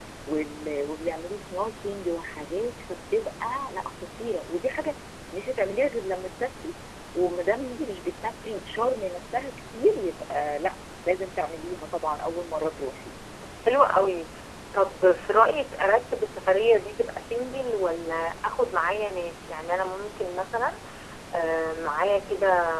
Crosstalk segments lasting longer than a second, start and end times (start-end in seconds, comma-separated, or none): none